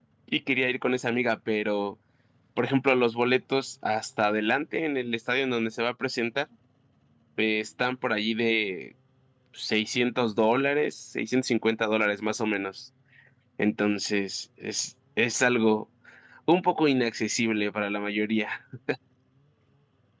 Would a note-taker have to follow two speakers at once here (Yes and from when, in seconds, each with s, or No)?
No